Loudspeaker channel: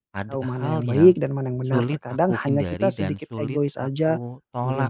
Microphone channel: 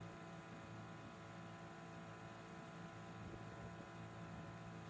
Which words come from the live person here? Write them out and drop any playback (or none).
none